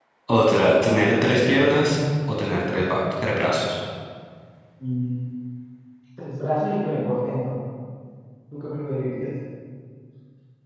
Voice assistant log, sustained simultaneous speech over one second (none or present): none